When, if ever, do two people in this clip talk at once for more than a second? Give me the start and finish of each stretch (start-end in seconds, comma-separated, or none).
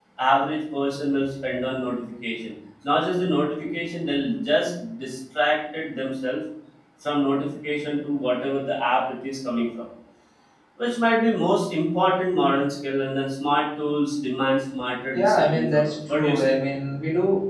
15.1-16.5